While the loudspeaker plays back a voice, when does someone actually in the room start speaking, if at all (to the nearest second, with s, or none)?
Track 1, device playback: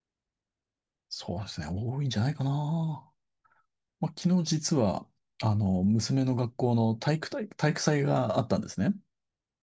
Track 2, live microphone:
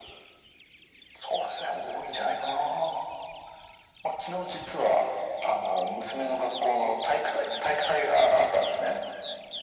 none